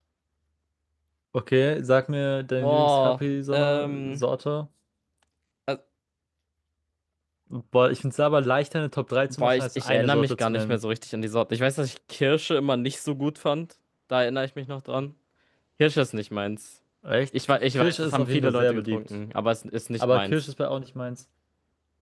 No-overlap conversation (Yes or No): No